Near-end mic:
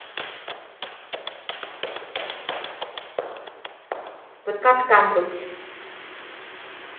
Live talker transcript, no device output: Вот как там быть?

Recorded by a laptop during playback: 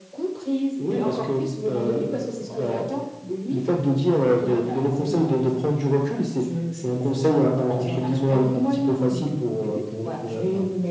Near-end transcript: Mmh mh.

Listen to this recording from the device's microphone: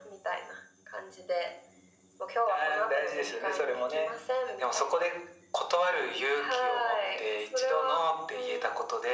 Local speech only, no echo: none

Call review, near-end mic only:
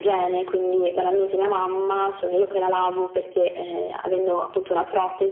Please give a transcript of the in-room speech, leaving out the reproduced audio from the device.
none

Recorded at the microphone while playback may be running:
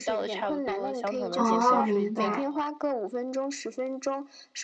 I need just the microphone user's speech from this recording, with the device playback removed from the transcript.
哦，明白。

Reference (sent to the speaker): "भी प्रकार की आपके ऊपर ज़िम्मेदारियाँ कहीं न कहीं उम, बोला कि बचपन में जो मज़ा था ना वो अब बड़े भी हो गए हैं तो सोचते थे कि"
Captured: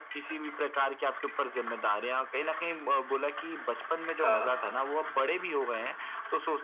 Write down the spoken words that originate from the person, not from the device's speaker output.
हाँ।

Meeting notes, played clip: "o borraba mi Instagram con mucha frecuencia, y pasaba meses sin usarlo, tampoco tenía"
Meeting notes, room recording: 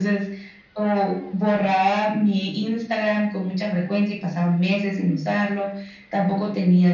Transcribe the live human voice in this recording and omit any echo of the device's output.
none

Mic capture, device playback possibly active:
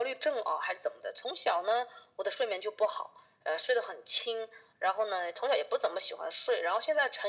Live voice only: none

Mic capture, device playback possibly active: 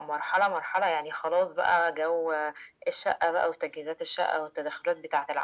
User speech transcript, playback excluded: none

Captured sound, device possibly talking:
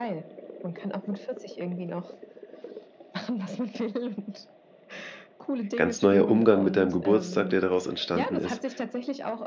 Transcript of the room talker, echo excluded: ganz neuer Umgang mit deinem Geburtstag, der daraus entstanden ist.“

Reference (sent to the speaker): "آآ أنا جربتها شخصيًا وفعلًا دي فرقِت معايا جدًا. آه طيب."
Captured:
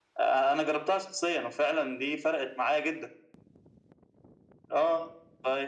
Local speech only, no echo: none

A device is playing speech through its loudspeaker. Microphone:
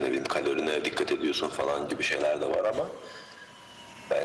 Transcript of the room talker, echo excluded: none

